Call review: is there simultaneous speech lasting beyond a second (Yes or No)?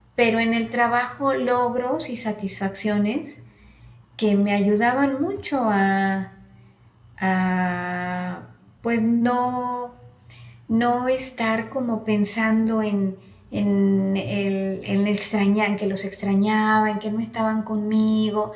No